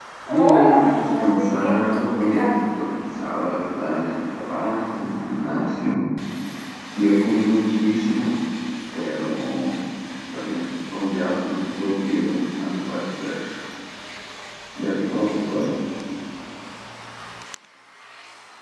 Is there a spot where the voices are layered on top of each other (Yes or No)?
Yes